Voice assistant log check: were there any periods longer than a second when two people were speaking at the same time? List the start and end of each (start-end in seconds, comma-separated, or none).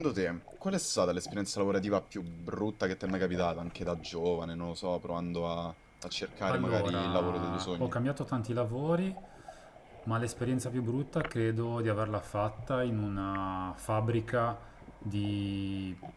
6.5-7.9